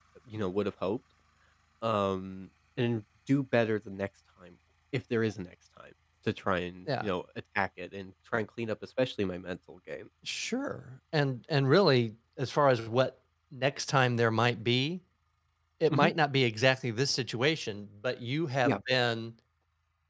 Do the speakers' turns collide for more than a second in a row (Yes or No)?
No